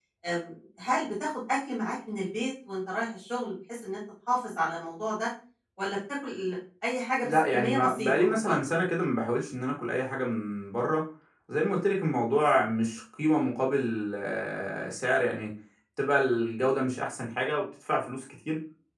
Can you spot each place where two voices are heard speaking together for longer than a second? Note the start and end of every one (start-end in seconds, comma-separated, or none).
7.2-8.7